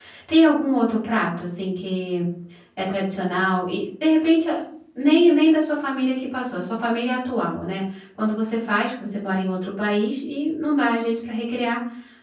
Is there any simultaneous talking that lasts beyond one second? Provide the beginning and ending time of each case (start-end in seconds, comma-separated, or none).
none